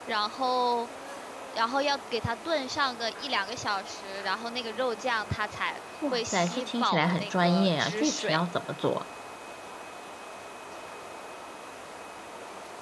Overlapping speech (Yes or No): Yes